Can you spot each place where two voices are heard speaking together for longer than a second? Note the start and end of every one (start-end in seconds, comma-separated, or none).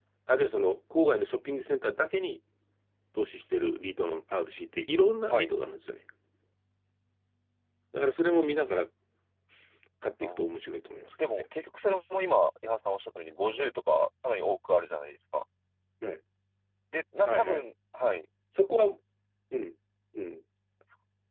none